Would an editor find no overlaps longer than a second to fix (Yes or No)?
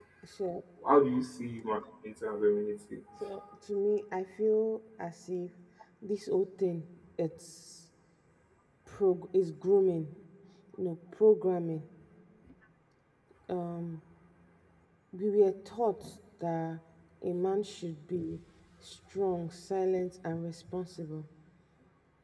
Yes